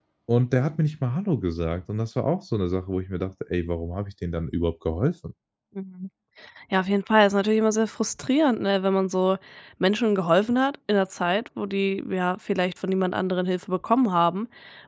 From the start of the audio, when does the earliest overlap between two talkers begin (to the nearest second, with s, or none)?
none